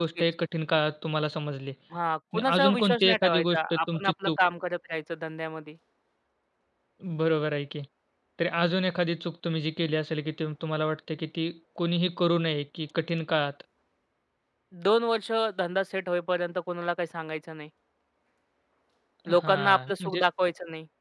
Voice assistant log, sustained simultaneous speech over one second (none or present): present